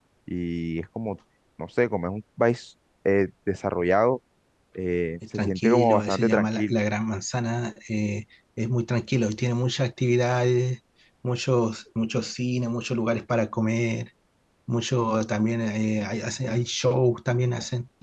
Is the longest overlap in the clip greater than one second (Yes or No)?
Yes